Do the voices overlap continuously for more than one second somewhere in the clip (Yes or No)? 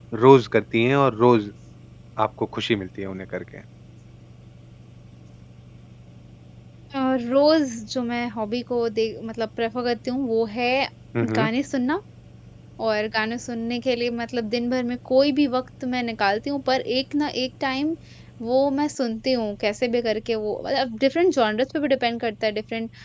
No